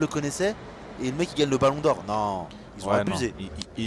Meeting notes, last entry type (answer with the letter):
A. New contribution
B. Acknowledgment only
A